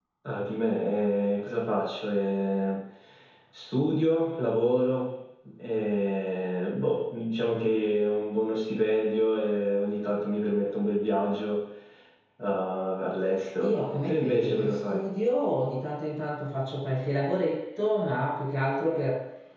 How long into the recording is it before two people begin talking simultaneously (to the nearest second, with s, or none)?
14 s